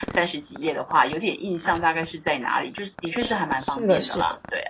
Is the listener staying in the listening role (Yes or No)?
No